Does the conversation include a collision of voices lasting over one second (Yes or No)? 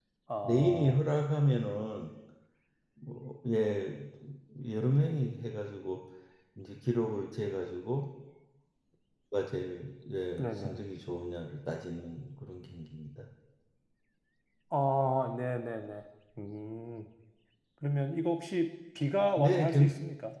No